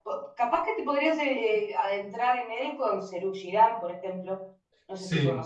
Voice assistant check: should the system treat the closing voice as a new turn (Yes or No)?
Yes